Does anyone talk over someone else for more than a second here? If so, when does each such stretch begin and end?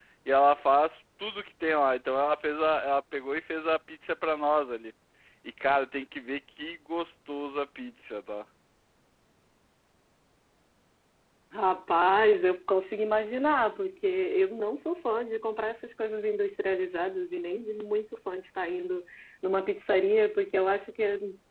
none

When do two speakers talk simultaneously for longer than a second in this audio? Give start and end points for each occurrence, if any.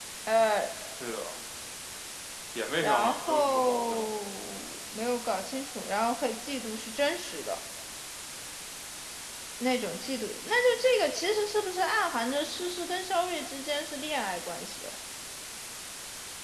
2.8-4.1

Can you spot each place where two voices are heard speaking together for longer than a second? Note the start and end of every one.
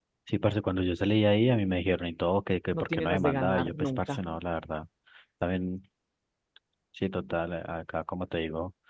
2.7-4.2

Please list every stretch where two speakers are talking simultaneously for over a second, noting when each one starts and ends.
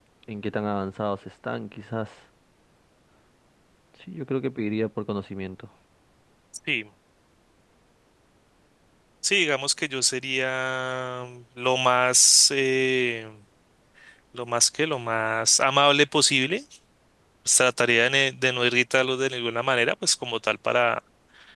none

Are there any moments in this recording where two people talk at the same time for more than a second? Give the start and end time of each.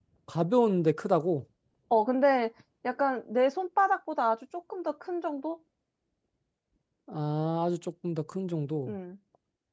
none

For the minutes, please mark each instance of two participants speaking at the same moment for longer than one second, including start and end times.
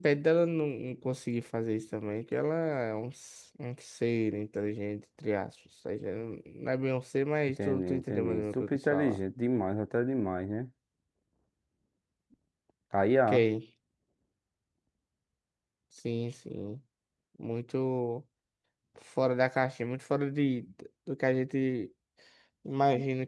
7.6-9.2

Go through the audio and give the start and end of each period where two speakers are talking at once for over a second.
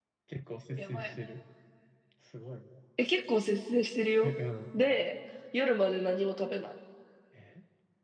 none

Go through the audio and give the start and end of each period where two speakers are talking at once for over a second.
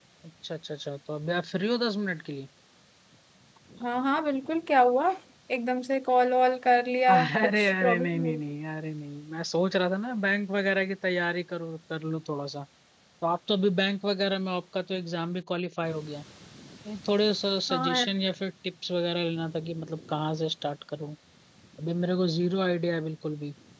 7.1-8.3

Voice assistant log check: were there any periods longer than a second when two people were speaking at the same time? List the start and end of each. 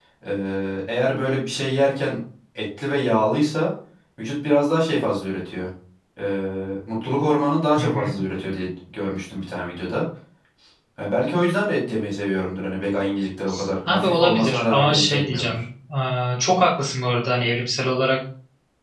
13.9-15.7

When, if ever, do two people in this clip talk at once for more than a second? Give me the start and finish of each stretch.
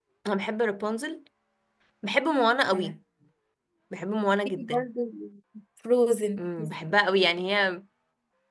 none

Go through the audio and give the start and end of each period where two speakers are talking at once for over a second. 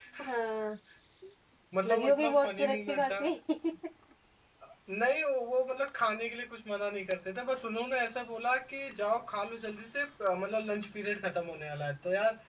1.9-3.2

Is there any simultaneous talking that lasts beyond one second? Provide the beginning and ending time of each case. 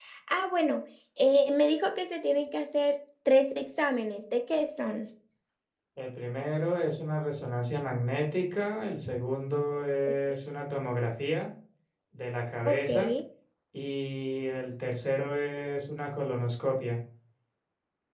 none

